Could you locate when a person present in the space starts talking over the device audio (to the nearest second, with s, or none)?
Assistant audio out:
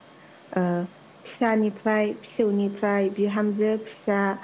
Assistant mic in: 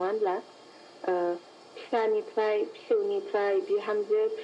none